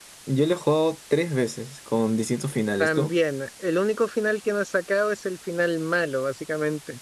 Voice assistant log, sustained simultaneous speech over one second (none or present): none